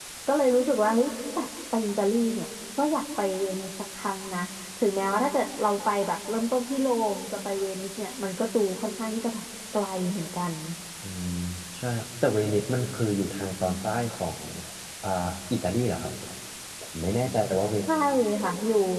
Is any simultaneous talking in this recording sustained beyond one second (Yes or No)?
No